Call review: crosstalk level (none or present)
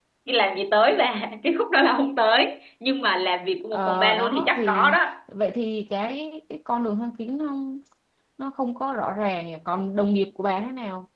present